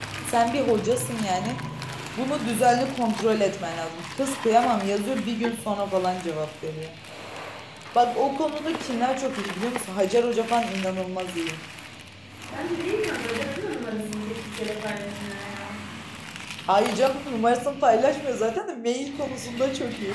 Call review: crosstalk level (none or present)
none